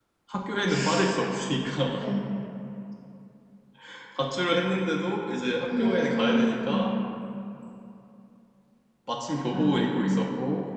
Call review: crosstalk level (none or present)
present